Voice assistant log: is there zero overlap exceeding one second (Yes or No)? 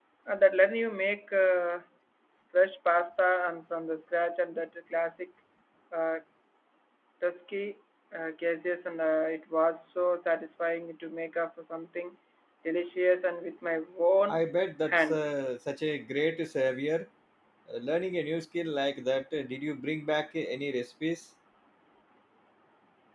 Yes